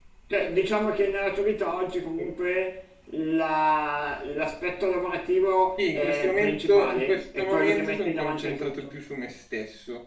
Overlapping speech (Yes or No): Yes